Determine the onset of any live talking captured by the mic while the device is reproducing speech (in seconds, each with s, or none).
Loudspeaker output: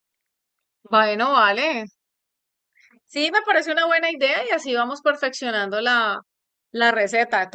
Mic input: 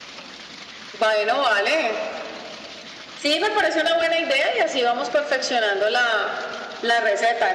none